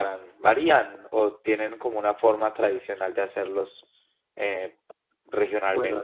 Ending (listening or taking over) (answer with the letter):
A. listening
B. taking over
B